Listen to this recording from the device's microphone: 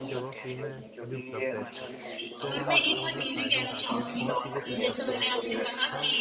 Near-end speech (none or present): present